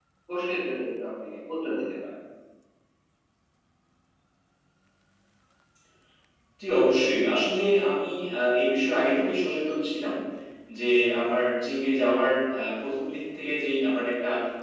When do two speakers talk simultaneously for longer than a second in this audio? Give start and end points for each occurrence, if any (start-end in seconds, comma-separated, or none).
none